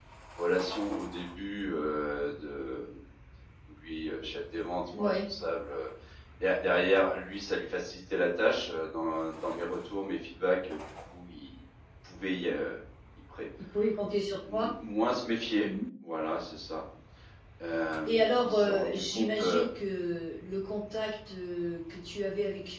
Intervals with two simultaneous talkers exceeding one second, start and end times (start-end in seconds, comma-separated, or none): 18.1-19.6